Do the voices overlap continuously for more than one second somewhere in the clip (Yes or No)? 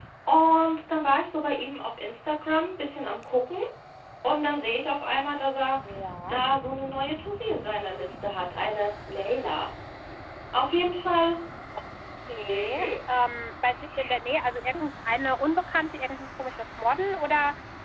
No